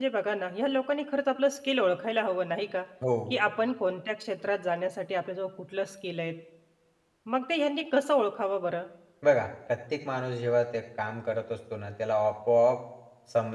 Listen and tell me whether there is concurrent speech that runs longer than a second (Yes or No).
No